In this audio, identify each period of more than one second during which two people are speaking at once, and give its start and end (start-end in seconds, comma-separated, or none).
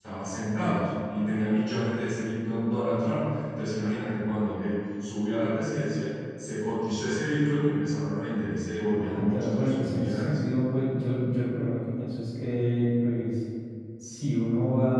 9.0-10.4